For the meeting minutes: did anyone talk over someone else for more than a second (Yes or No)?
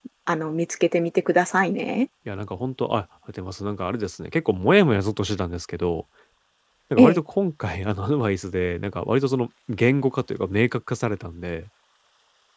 No